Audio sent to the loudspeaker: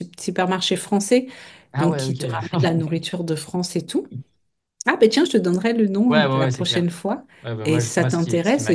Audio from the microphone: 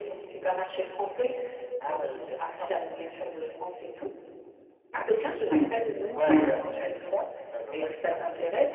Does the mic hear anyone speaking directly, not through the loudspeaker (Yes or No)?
Yes